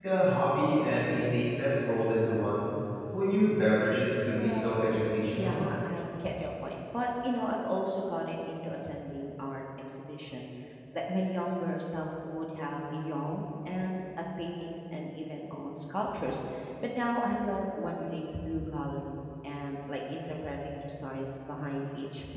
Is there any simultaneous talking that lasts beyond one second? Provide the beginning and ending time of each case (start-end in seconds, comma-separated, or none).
4.4-5.6